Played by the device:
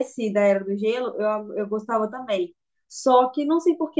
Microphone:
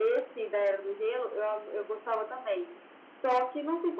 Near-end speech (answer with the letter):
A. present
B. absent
B